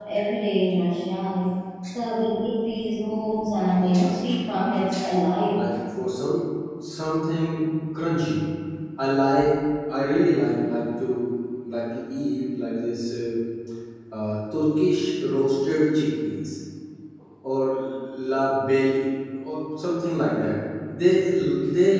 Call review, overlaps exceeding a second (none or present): present